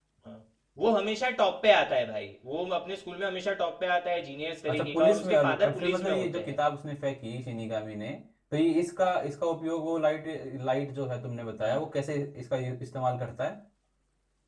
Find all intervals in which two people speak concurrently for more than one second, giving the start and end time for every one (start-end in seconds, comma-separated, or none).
4.7-6.5